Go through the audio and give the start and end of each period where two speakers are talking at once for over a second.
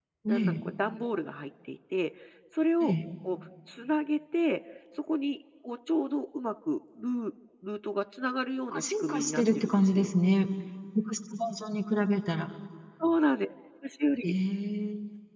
8.7-10.1

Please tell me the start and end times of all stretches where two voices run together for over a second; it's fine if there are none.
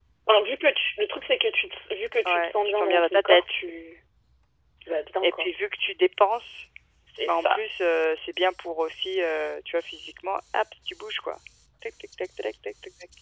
2.2-3.6

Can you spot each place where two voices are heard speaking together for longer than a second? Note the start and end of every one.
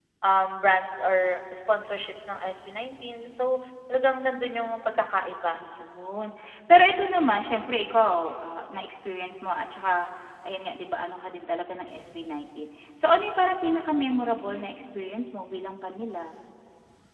none

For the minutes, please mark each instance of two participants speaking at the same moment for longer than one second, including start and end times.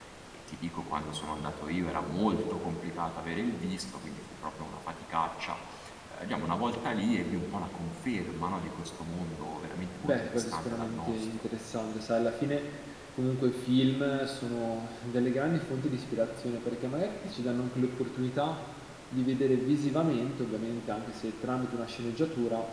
10.0-11.4

